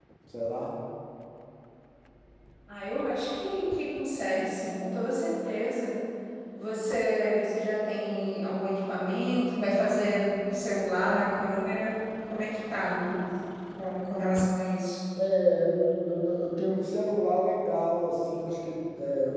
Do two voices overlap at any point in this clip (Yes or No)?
No